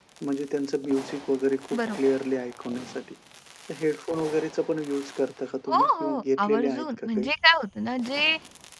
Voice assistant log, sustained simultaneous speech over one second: present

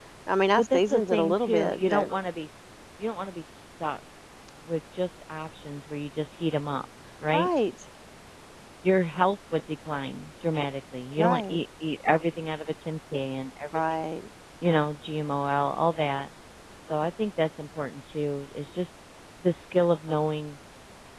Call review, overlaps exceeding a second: present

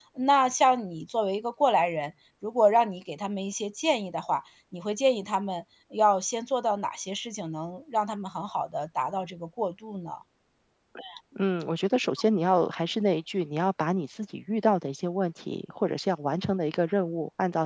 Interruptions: none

